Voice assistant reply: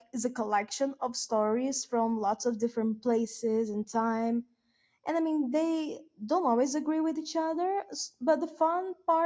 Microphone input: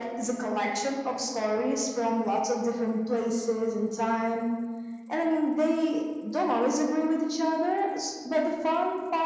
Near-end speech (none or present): none